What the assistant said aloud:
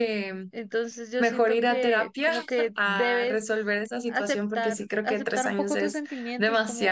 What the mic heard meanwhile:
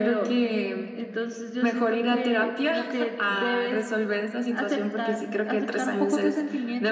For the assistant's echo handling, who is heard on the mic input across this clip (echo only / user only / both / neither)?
echo only